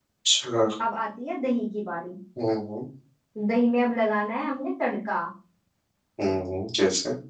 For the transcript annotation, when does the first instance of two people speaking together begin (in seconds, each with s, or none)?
none